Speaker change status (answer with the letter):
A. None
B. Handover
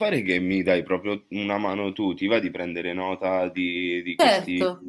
B